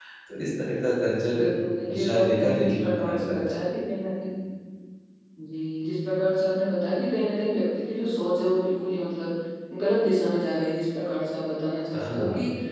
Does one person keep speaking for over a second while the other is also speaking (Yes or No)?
Yes